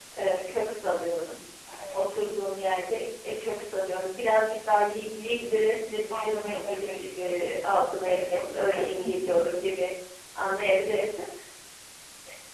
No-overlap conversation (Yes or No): No